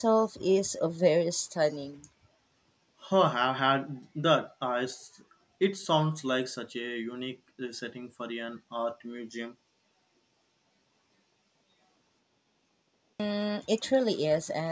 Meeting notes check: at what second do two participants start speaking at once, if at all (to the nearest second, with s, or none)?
none